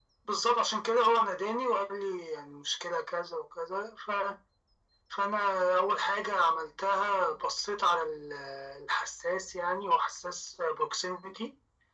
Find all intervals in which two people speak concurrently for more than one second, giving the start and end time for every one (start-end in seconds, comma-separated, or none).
none